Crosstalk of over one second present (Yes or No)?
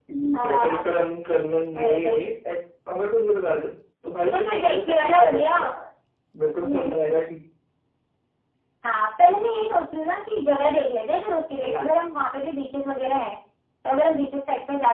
Yes